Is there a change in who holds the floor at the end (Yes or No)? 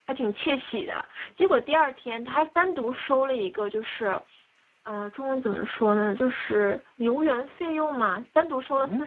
No